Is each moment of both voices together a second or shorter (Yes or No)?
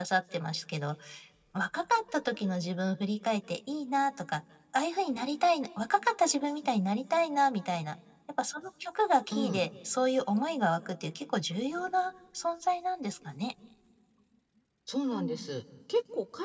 Yes